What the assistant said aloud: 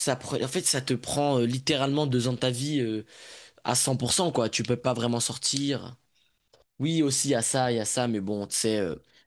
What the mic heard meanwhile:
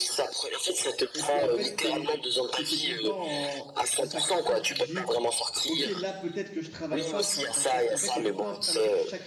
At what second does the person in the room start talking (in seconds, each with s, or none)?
1.1 s